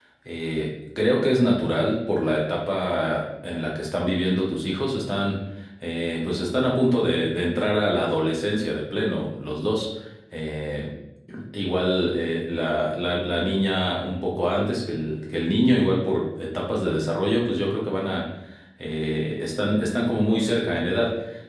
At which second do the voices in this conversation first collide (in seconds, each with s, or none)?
none